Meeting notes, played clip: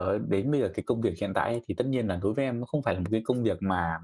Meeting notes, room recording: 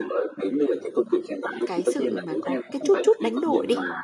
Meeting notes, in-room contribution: present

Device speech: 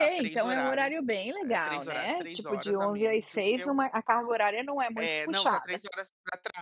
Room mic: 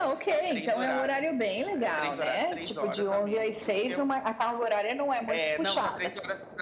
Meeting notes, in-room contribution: none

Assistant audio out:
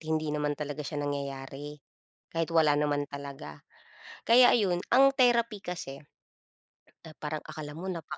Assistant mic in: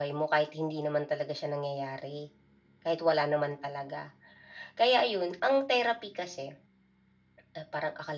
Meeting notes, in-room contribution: none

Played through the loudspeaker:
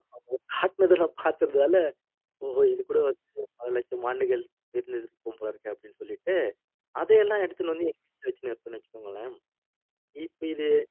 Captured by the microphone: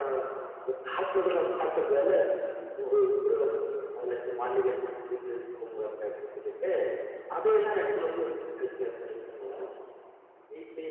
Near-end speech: none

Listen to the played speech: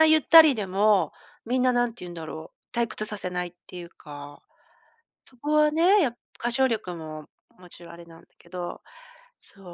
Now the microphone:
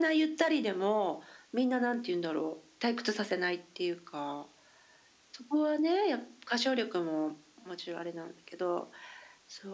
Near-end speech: none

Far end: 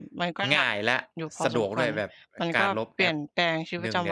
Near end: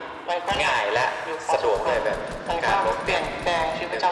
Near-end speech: none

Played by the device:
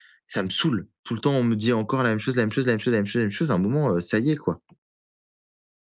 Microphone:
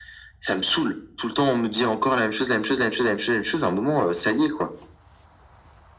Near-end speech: none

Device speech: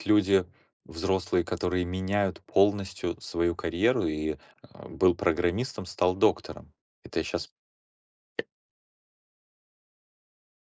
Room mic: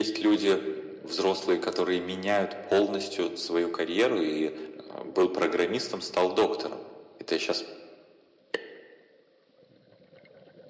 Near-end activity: none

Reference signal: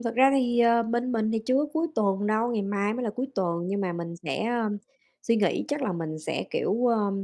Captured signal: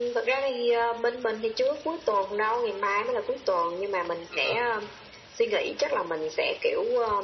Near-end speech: present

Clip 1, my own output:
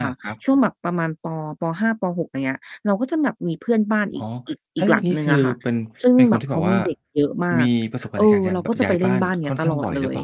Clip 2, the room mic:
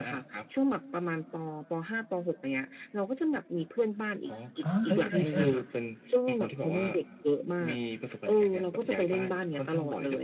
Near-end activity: present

